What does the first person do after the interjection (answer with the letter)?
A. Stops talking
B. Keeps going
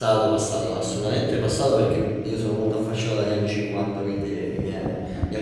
A